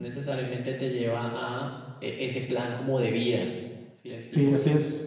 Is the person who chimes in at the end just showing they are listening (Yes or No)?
No